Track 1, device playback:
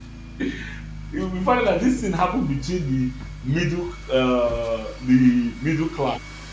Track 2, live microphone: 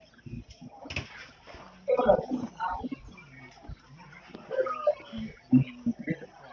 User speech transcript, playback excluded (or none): none